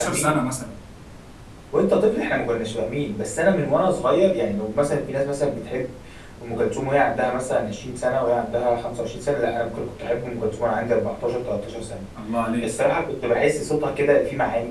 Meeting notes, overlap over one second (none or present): none